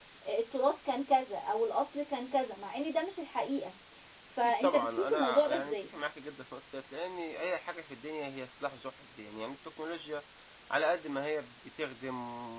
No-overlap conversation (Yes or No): No